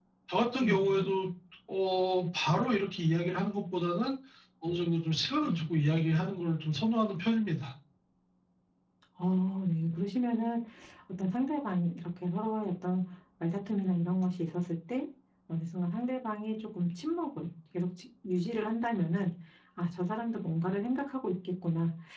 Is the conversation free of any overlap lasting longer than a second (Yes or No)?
Yes